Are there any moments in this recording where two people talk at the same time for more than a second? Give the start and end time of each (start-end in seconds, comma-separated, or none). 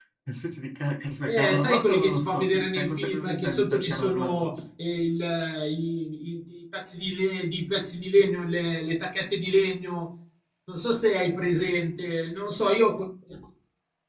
1.3-4.3